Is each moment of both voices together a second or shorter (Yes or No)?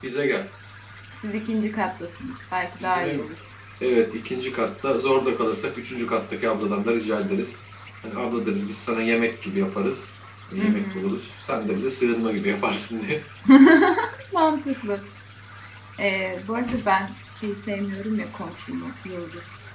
Yes